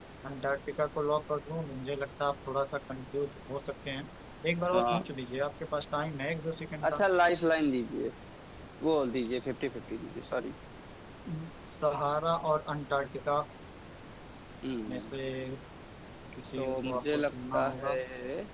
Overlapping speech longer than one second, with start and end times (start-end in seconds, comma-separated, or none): 16.6-17.9